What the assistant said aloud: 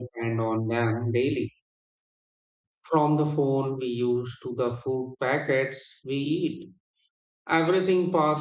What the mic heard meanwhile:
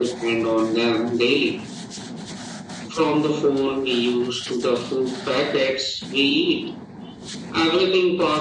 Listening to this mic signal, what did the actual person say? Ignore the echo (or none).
none